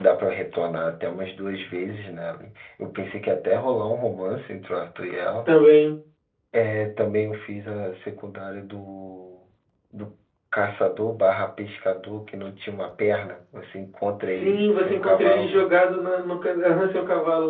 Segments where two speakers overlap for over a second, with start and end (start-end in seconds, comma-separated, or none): 14.2-15.7